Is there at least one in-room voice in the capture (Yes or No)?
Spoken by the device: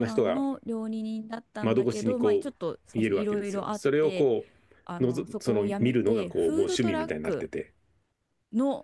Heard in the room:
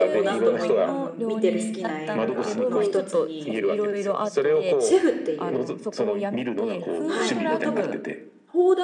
Yes